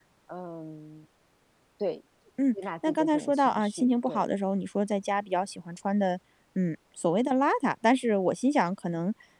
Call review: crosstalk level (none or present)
present